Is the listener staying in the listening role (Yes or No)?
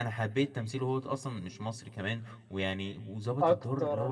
No